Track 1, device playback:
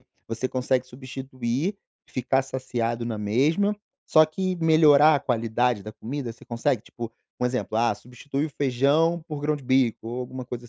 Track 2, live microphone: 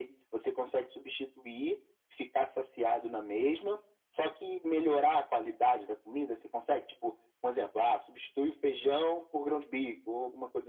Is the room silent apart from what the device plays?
Yes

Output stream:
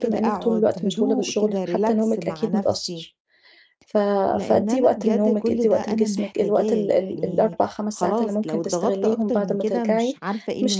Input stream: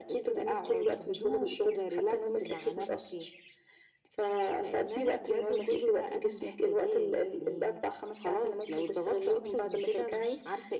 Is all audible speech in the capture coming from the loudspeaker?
Yes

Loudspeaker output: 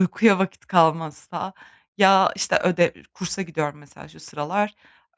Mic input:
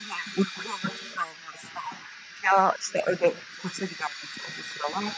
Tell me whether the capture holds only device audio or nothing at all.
Yes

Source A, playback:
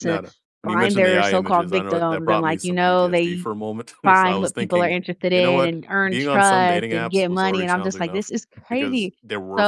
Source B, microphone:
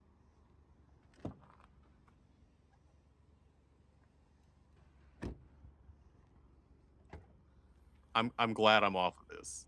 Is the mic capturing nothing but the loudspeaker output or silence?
No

